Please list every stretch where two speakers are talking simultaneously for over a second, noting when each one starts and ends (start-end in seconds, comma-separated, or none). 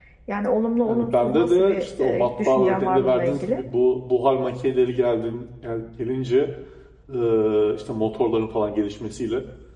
0.8-3.6